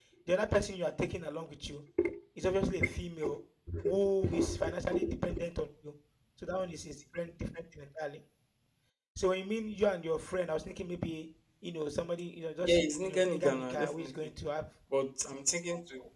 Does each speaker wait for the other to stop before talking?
No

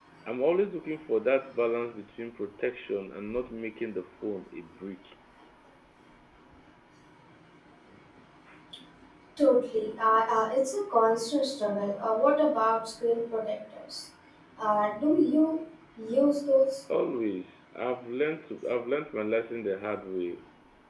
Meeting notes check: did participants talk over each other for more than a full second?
No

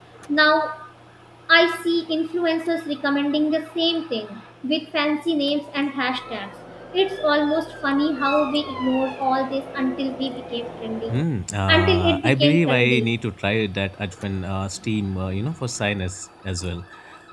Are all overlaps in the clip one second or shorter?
No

